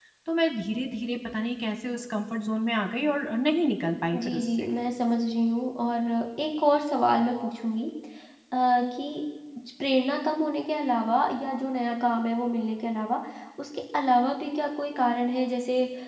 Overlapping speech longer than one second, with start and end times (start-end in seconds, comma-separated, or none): none